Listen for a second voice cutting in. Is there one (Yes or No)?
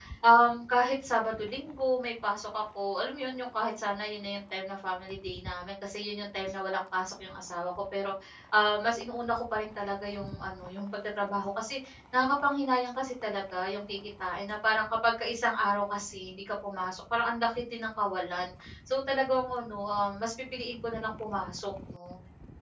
No